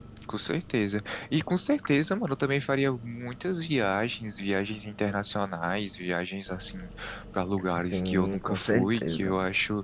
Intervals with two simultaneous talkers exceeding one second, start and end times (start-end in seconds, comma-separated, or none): 7.9-9.4